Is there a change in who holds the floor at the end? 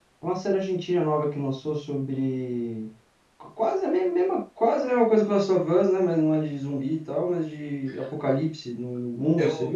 Yes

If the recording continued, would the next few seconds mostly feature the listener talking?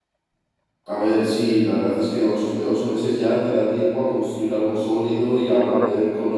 No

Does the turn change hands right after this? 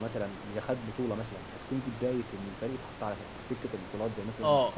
Yes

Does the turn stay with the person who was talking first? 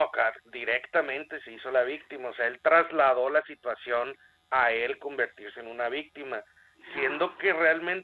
Yes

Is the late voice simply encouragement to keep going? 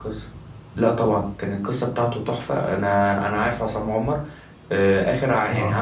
Yes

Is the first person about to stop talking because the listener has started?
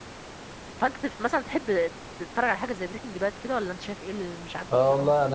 Yes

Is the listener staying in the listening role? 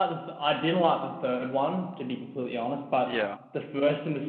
Yes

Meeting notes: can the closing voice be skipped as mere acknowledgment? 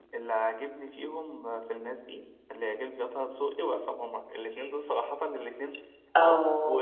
No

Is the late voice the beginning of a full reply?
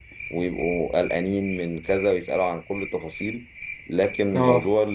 No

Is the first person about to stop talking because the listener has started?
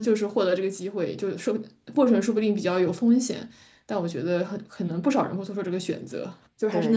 Yes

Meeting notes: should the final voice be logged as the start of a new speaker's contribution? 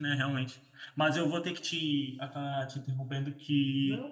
No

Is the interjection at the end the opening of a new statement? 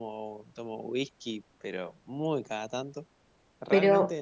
Yes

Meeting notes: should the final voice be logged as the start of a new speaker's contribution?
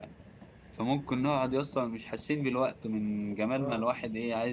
No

